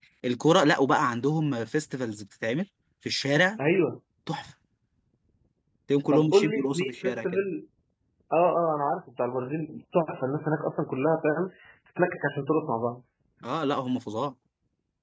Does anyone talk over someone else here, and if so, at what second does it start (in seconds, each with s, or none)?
6.1 s